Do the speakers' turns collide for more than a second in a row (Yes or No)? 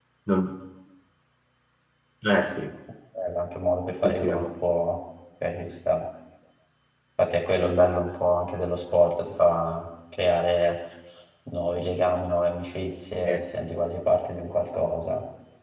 No